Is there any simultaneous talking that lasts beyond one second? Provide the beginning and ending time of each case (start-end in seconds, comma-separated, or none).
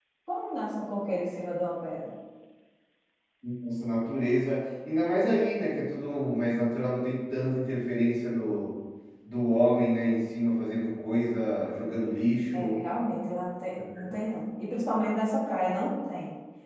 none